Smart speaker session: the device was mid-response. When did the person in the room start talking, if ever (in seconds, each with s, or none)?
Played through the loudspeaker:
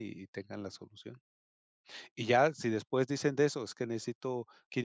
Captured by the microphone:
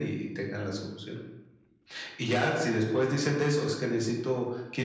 none